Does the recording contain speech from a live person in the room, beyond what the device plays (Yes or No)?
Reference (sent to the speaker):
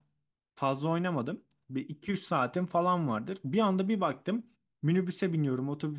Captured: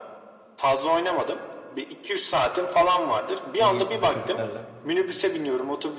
Yes